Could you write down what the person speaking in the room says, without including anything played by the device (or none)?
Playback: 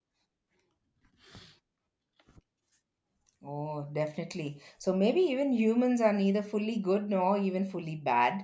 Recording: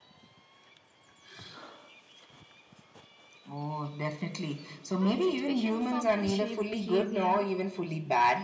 And situations often shape behavior.